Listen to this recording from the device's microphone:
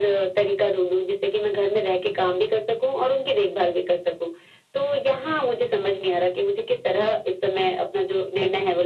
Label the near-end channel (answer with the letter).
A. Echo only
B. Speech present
A